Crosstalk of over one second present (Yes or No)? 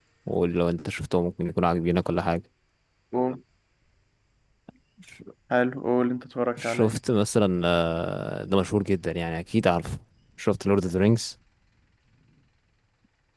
No